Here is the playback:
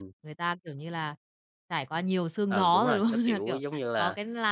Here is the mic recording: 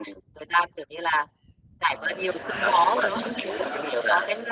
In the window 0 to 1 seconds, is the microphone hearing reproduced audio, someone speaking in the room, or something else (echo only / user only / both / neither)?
echo only